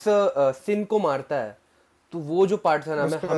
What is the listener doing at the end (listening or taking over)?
listening